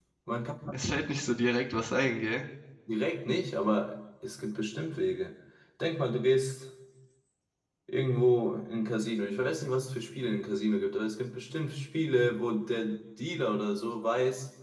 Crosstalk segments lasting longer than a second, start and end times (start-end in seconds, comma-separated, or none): none